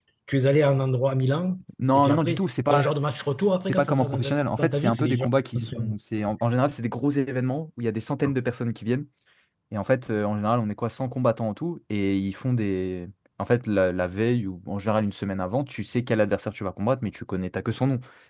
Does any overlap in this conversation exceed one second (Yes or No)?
Yes